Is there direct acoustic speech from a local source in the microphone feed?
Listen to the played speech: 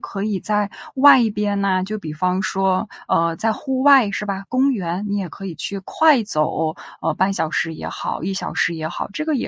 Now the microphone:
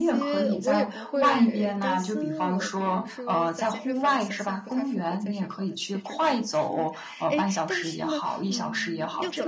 Yes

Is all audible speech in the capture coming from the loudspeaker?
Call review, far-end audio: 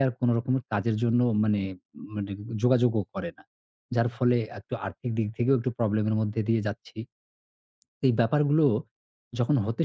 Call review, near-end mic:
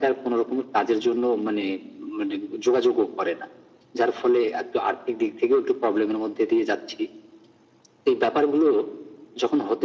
Yes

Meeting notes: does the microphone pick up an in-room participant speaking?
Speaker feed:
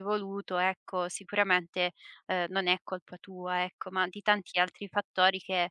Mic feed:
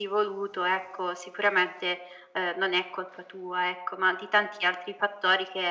No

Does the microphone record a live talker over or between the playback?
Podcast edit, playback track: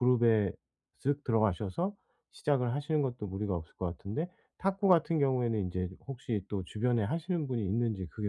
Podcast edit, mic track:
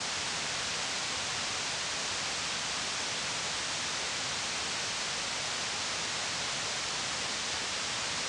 No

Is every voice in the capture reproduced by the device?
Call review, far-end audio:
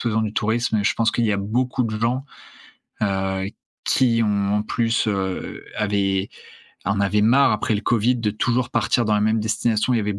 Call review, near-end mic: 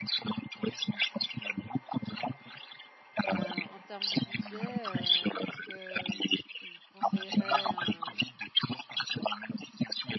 No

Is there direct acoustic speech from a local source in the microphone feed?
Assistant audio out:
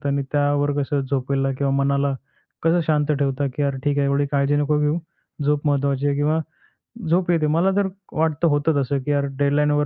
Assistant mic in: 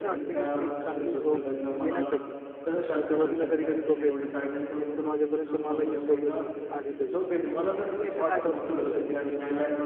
Yes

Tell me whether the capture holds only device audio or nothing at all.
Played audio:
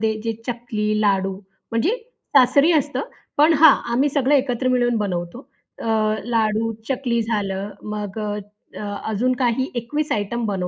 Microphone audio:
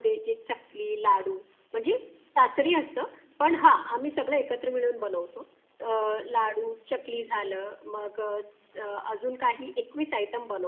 Yes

